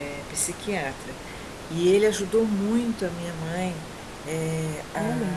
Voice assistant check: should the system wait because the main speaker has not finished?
Yes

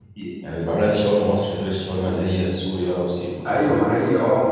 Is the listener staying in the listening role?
No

